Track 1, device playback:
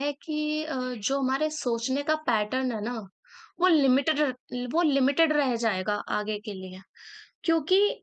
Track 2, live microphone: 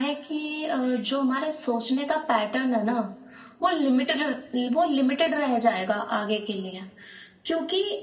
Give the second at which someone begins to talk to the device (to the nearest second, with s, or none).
none